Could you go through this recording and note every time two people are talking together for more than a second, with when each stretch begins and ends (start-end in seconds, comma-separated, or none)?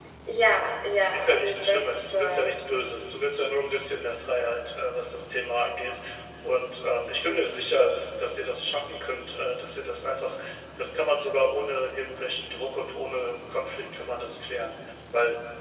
1.1-2.5